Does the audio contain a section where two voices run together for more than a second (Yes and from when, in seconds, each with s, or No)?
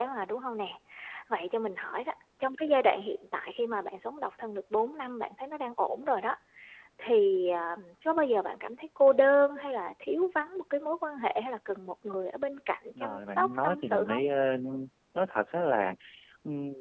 Yes, from 12.9 s